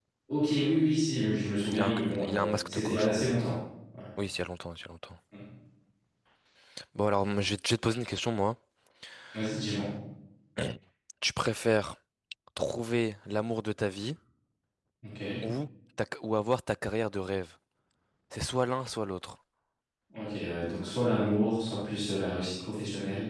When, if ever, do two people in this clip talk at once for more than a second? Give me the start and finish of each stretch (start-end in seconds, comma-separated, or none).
1.7-3.4